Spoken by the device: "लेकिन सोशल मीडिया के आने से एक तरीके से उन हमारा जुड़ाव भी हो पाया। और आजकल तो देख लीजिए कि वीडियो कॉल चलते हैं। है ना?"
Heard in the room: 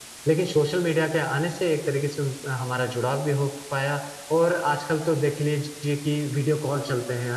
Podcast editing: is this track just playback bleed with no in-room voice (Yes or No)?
Yes